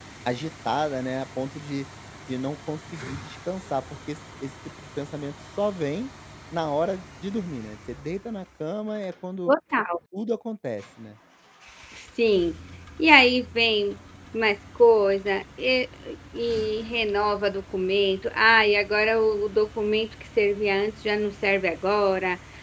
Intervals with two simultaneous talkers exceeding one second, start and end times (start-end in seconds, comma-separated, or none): none